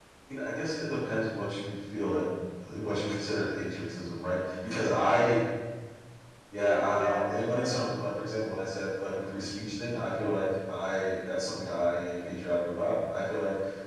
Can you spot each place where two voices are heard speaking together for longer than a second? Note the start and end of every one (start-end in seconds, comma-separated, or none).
6.5-7.8